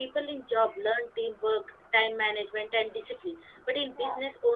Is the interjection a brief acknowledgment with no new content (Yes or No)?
Yes